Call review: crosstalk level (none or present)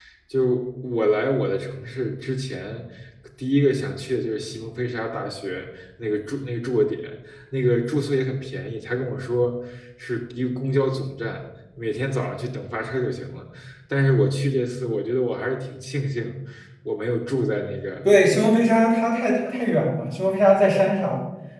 none